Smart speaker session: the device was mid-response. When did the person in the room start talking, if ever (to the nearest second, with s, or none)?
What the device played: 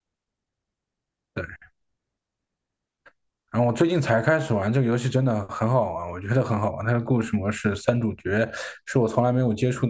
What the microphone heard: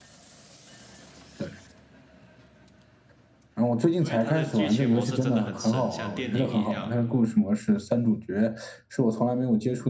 4 s